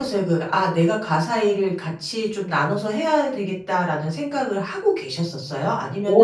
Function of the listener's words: taking over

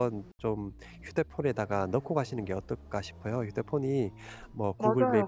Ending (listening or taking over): taking over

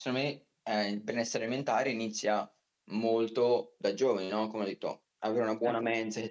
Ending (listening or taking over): listening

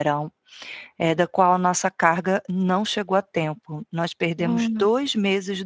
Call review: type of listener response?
listening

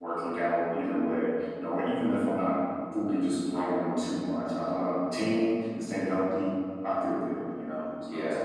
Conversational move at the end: taking over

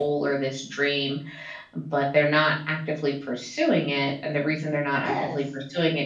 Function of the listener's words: listening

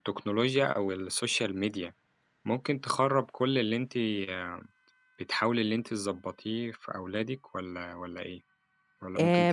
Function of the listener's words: taking over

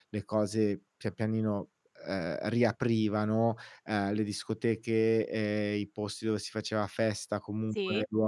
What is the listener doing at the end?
listening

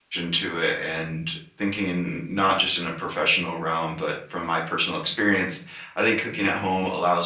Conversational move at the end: listening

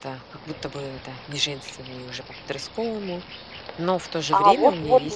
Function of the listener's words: taking over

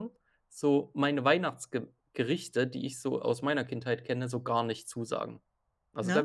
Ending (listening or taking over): listening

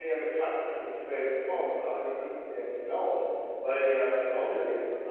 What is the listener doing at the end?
listening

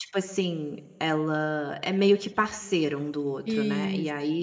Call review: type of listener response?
listening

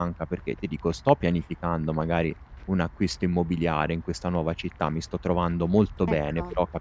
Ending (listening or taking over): listening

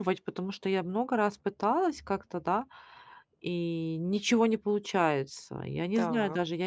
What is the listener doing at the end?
listening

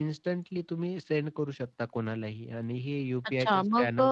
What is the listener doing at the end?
taking over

